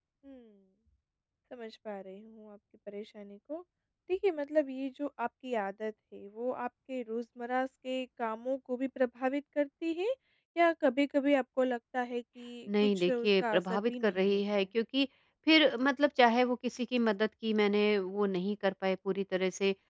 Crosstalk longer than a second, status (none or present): present